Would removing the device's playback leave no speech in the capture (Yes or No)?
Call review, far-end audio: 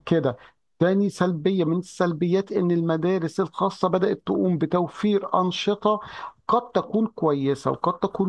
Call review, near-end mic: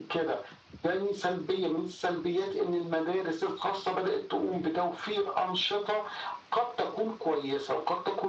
Yes